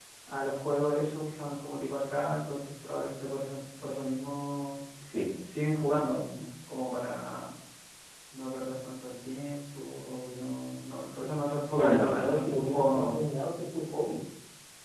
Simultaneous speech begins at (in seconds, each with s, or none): 11.7 s